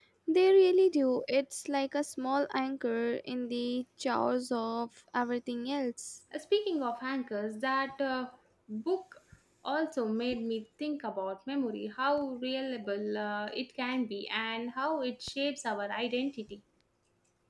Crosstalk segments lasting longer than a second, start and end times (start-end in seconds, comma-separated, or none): none